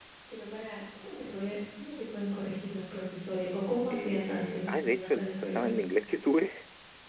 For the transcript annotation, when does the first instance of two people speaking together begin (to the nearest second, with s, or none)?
4 s